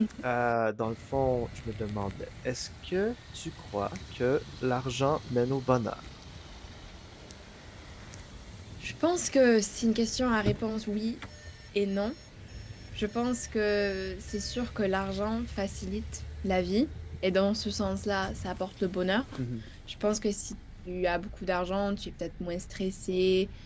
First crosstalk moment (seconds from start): none

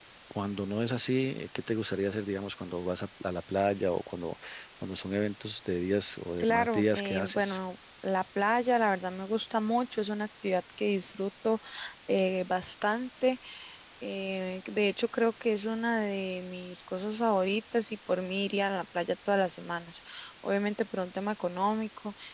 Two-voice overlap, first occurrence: 6.4 s

